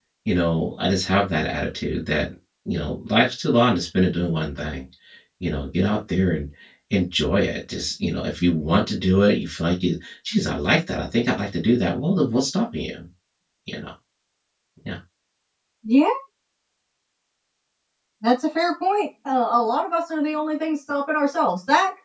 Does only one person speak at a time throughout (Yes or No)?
Yes